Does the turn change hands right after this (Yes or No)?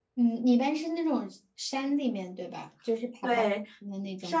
Yes